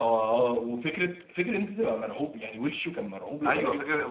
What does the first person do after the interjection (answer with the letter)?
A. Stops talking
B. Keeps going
A